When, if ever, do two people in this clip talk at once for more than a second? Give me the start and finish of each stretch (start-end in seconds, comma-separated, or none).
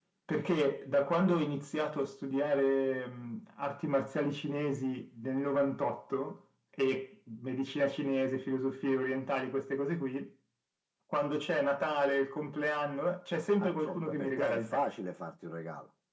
13.6-14.8